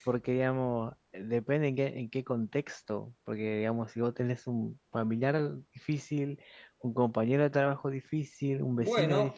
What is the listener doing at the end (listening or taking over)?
taking over